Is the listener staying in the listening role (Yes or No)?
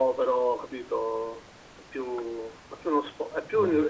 Yes